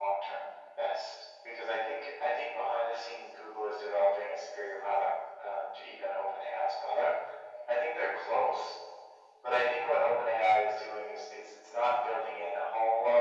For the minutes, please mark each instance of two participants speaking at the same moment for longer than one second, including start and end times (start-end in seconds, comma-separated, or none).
none